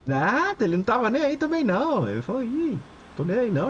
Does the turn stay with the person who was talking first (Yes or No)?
Yes